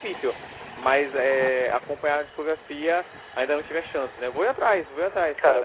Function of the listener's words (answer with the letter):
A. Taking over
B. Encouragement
A